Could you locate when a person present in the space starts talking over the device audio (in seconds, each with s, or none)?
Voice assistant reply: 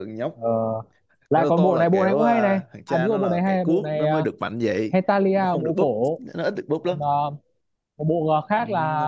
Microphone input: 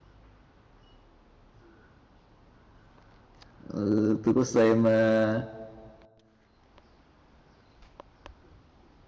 3.6 s